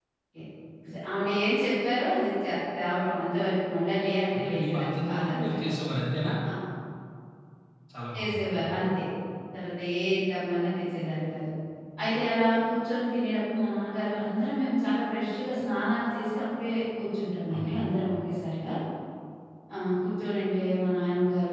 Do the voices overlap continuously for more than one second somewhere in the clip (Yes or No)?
Yes